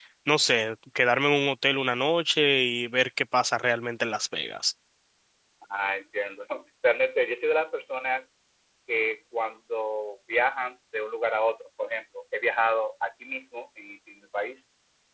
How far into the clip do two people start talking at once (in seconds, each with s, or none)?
none